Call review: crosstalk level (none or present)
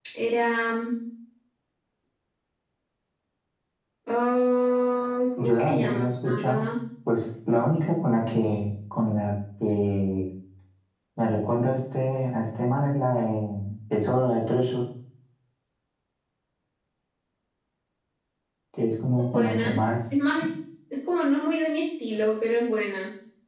present